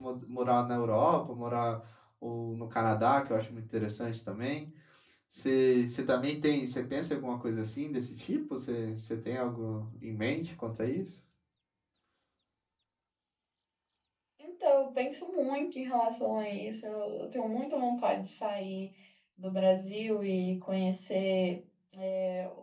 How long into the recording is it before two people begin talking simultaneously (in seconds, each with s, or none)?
none